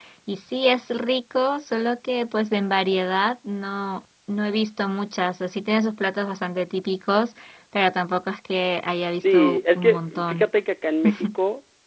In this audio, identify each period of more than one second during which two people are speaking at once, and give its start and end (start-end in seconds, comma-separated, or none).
9.0-10.5